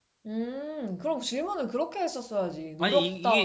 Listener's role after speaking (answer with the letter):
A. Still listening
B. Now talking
B